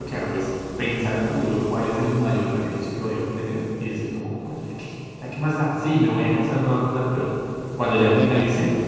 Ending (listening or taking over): listening